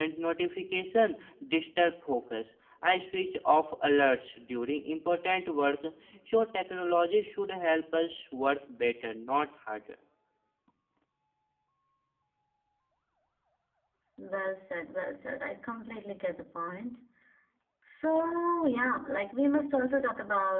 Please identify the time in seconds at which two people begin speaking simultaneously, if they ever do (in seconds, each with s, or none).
none